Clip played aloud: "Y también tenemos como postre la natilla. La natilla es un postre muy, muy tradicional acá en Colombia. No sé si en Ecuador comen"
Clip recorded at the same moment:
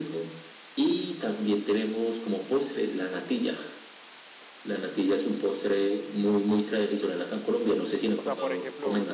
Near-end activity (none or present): present